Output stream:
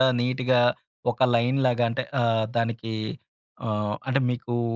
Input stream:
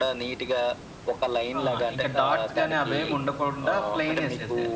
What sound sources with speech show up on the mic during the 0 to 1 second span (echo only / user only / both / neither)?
echo only